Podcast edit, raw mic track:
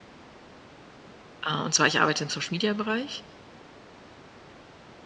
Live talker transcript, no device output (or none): Äh, und zwar, ich arbeite im Social-Media-Bereich